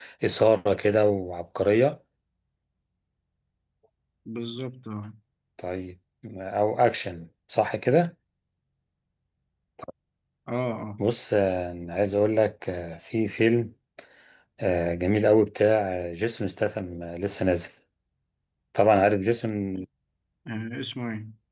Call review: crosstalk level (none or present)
none